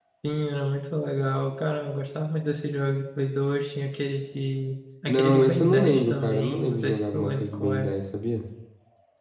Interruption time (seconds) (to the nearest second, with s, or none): 5 s